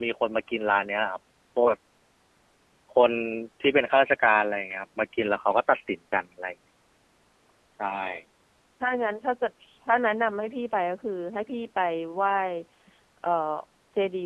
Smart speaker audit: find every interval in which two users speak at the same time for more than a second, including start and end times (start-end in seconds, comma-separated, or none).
none